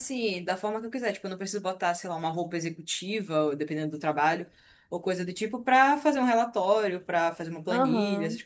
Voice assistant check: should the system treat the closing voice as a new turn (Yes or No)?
No